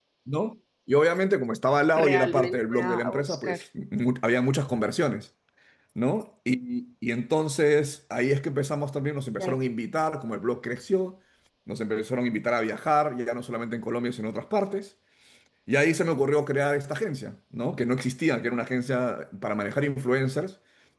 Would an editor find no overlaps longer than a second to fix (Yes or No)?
No